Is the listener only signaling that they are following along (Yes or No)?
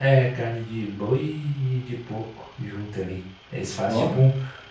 Yes